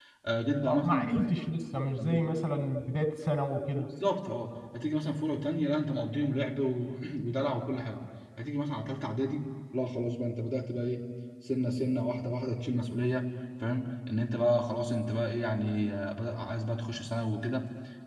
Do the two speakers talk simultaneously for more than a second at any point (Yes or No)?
No